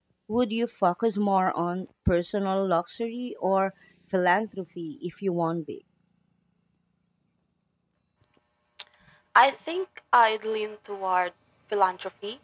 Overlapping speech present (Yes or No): No